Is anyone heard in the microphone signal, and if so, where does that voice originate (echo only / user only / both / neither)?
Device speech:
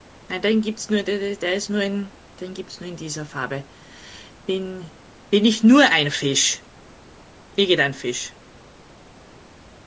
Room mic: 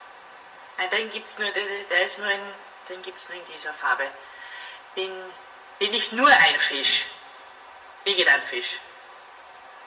echo only